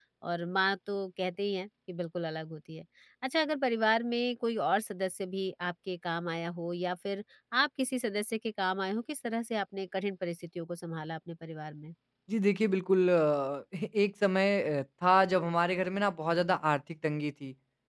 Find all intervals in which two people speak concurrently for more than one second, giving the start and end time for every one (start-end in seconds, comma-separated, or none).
none